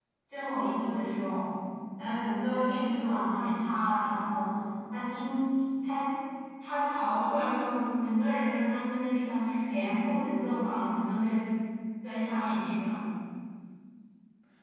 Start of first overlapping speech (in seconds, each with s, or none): none